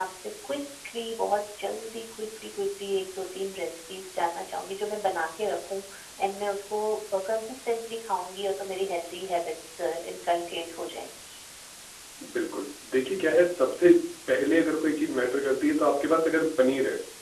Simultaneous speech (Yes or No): No